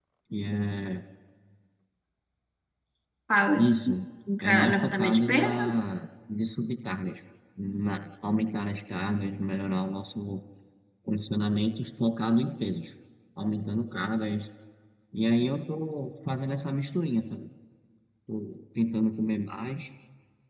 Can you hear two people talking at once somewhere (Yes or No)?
Yes